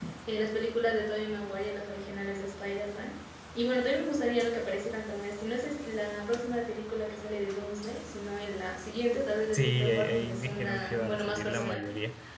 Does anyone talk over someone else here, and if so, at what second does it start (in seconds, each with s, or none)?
9.5 s